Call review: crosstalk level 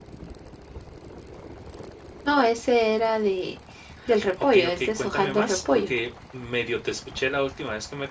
present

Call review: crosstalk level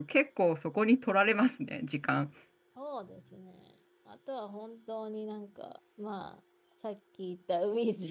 none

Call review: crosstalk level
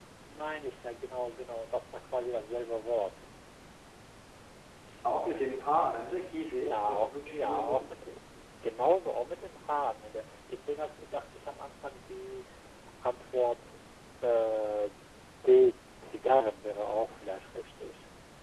present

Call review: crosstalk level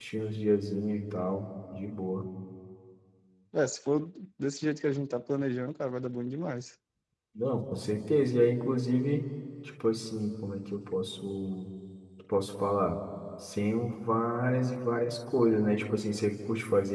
none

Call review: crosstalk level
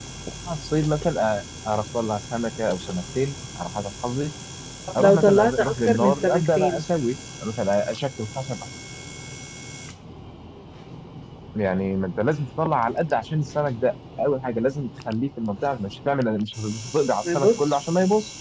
present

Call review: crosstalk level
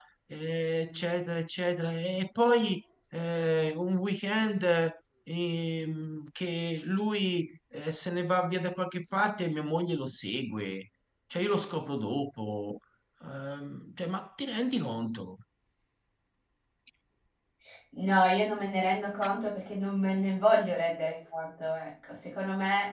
none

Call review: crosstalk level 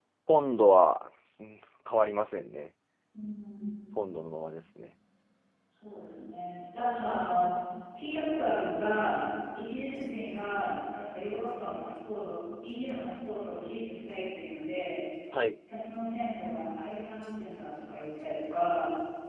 none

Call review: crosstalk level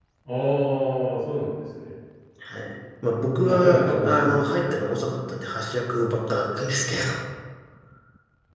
present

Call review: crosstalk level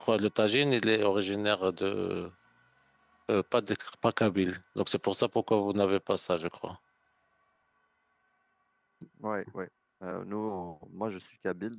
none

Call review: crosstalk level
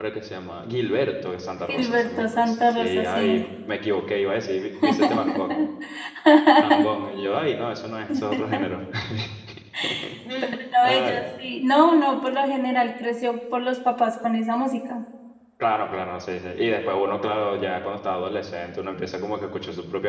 present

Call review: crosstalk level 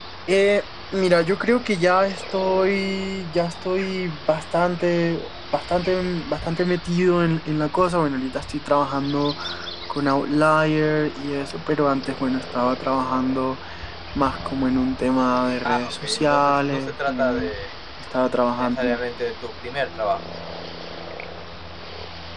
present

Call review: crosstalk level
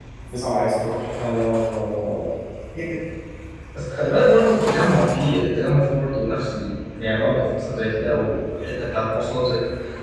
none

